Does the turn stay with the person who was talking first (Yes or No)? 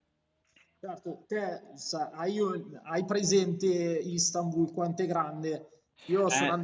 Yes